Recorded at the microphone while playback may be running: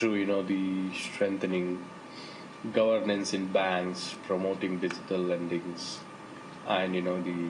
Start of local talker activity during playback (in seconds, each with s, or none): none